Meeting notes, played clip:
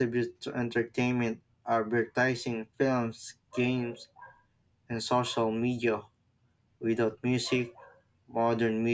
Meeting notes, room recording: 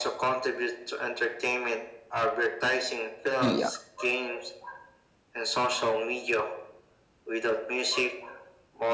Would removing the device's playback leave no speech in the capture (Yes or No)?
No